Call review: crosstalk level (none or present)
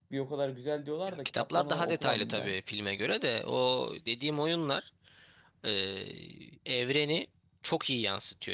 present